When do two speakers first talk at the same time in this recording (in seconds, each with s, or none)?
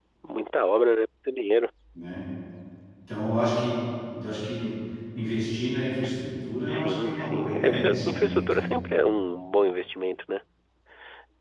6.7 s